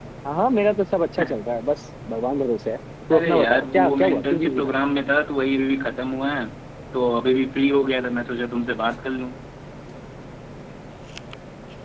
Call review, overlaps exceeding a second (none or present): present